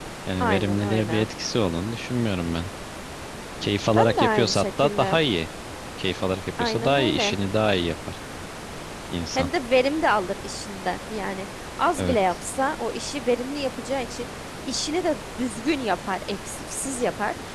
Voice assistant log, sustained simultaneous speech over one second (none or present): present